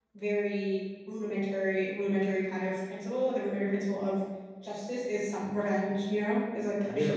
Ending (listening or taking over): taking over